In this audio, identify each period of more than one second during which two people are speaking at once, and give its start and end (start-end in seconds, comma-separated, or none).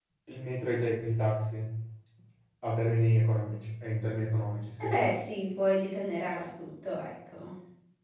none